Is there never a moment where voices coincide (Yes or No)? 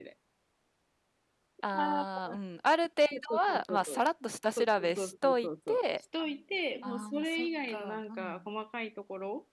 No